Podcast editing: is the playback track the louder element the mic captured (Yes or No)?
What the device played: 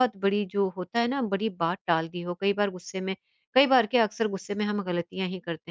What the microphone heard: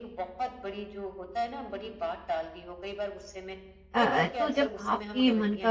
No